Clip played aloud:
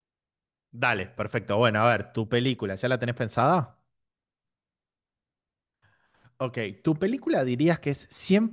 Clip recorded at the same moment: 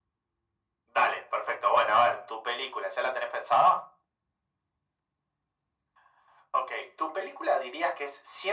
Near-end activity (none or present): none